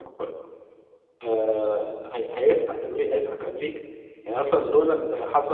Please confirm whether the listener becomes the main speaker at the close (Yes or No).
No